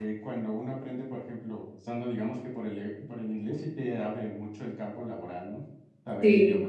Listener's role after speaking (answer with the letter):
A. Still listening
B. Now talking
B